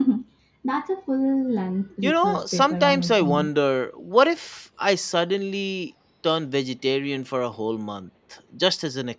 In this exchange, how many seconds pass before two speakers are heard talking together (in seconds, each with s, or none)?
2.0 s